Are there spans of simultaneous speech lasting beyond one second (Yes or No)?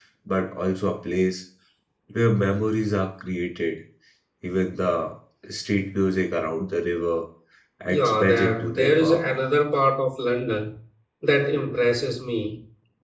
Yes